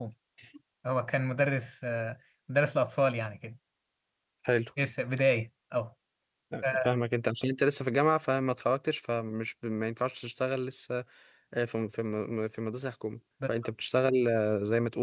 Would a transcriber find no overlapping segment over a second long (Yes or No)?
Yes